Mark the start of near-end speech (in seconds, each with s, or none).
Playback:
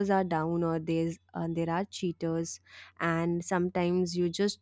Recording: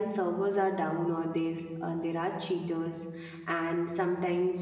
none